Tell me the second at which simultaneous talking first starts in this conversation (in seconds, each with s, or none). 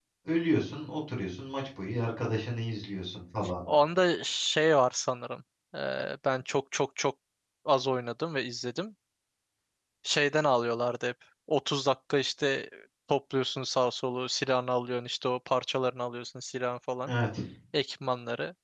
none